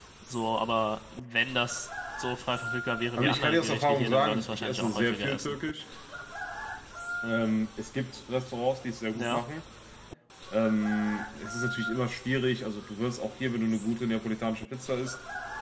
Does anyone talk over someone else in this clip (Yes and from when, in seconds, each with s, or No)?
Yes, from 3.2 s